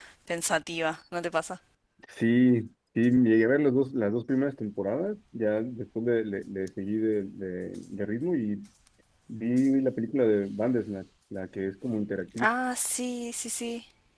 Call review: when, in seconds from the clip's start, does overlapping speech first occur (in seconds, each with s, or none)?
none